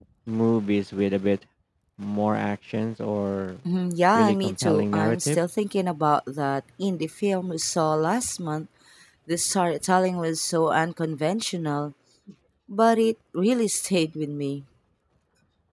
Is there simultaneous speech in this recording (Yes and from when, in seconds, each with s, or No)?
Yes, from 4.2 s